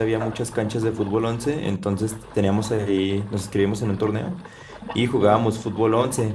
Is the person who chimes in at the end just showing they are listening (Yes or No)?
Yes